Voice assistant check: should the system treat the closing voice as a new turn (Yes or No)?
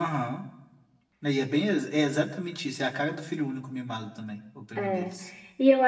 Yes